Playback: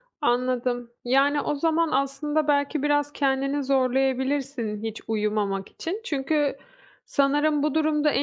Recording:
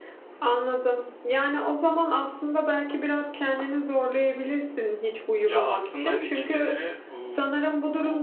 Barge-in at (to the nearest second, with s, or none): 5 s